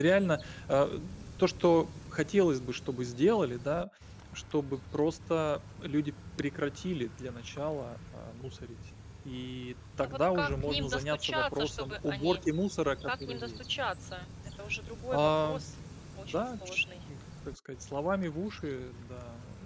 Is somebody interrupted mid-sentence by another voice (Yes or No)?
Yes